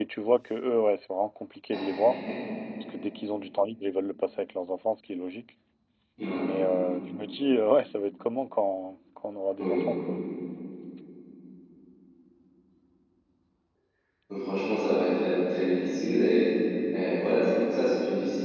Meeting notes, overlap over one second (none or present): none